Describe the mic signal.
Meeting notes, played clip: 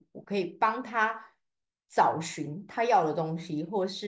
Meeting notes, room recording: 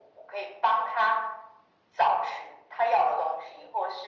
echo only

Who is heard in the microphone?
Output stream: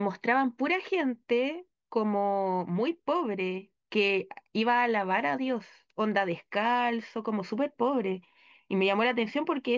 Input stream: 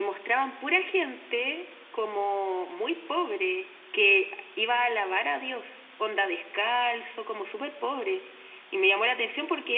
echo only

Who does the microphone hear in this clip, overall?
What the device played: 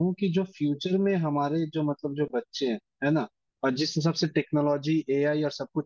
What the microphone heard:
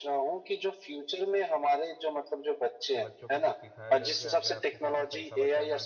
both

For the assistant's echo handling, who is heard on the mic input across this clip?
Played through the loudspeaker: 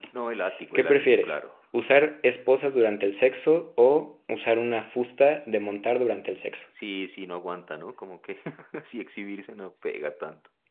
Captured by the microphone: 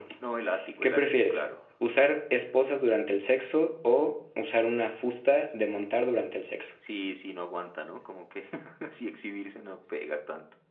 echo only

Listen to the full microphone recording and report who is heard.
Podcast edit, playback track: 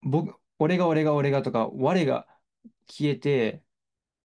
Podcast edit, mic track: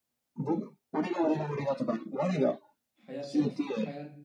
both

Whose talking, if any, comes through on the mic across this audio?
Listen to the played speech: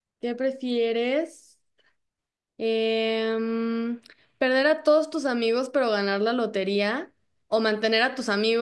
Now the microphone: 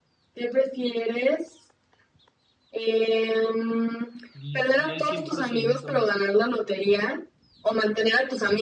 both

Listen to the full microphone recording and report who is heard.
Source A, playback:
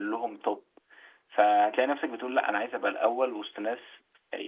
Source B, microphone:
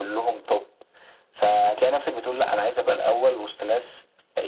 echo only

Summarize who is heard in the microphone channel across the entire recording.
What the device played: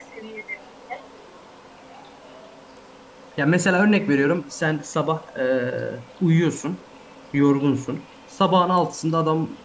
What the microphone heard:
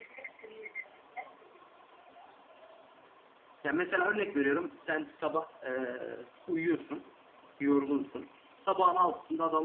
echo only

